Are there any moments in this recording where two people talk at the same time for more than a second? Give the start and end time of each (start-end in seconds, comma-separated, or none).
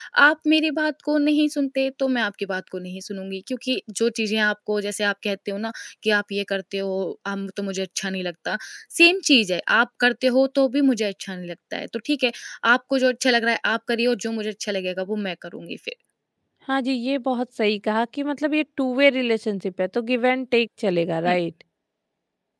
none